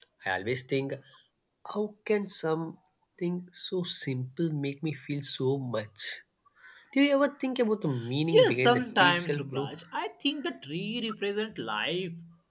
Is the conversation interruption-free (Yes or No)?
No